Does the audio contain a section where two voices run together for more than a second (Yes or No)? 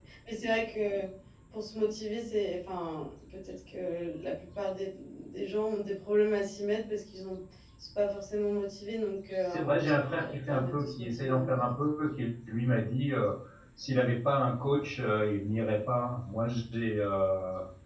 Yes